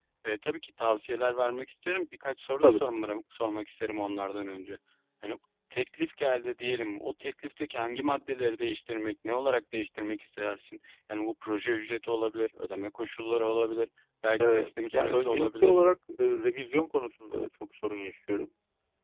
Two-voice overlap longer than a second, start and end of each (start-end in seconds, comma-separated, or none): 14.4-15.8